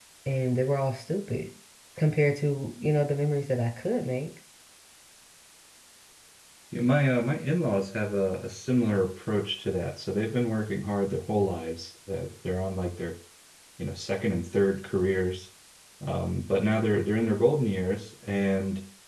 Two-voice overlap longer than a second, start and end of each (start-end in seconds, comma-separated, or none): none